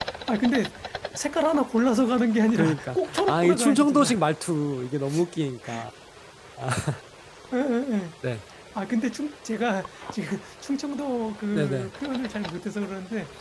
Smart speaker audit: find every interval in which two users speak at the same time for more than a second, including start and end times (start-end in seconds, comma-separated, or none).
2.6-4.1